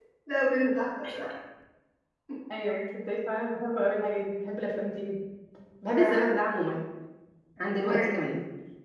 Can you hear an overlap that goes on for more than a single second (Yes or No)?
No